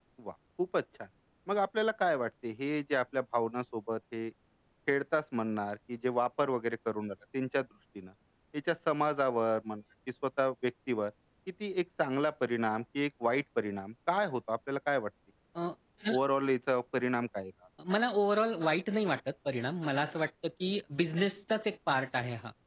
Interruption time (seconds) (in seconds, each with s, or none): none